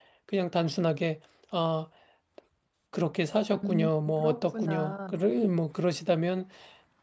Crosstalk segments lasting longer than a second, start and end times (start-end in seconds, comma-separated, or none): 3.5-5.1